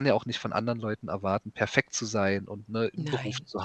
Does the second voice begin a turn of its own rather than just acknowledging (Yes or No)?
No